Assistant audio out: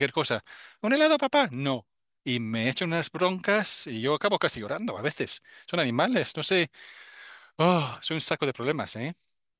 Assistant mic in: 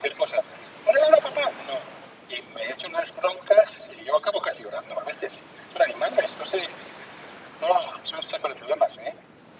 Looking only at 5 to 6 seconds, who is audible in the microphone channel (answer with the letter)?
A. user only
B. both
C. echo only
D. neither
C